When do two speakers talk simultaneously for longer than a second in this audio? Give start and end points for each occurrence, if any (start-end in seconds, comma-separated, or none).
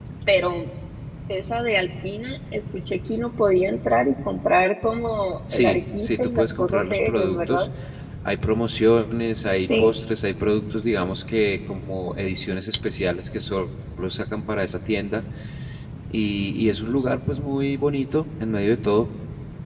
5.5-7.7